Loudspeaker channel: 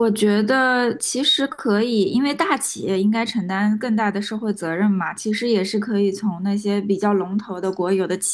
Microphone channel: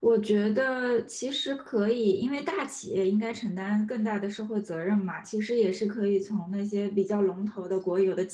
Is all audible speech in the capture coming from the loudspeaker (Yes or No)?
Yes